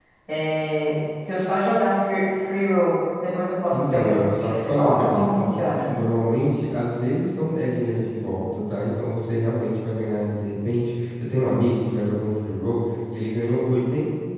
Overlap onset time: 3.7 s

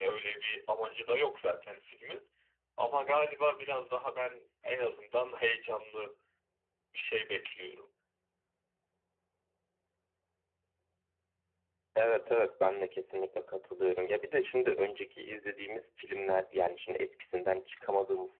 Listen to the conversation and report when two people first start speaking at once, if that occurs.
none

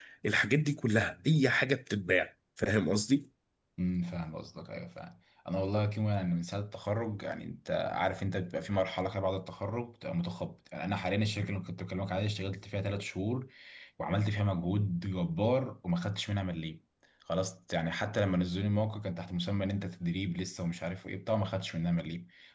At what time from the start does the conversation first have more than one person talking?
none

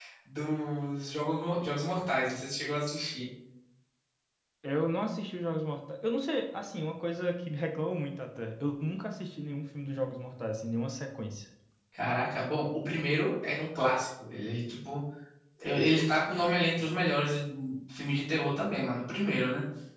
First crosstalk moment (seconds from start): none

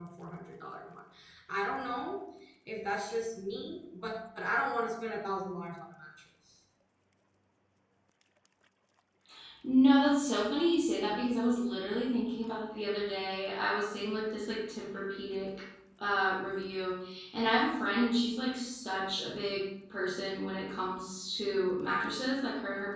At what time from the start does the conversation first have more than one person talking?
none

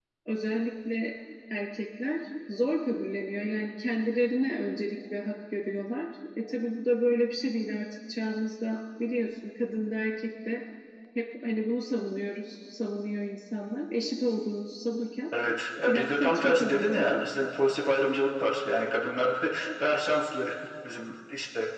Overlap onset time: 15.9 s

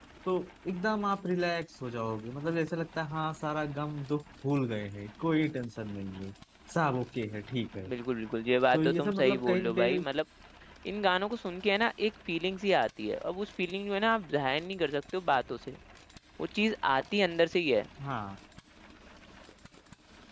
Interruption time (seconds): 8.7 s

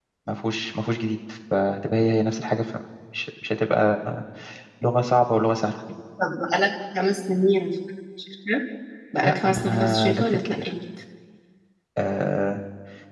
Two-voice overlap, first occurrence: 9.2 s

